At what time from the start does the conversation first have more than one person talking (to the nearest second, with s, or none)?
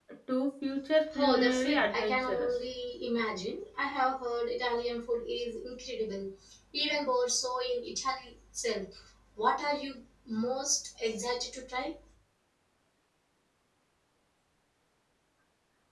1 s